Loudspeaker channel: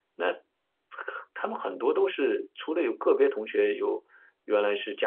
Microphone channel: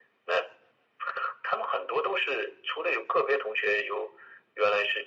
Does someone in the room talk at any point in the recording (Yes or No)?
No